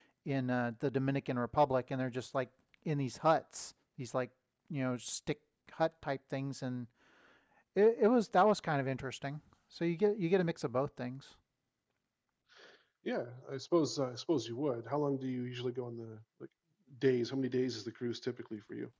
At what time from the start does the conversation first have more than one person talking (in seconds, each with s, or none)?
none